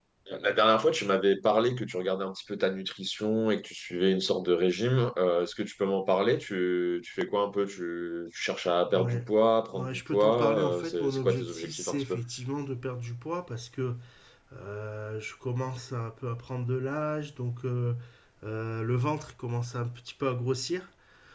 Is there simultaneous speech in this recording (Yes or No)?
Yes